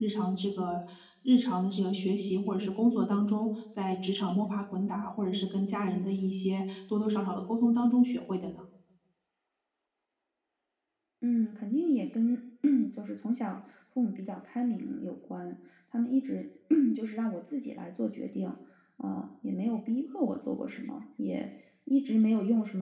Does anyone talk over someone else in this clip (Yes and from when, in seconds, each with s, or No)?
No